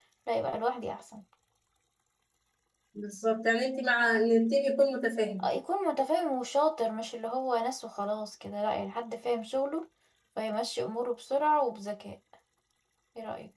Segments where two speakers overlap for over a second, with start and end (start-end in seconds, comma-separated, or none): none